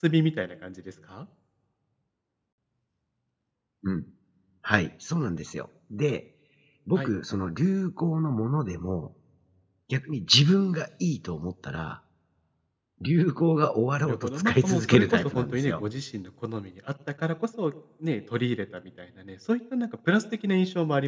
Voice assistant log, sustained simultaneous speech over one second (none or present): present